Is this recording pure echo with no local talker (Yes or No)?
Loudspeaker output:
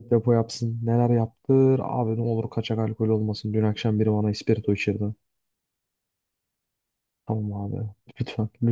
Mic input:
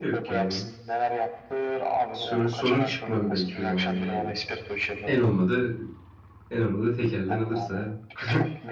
No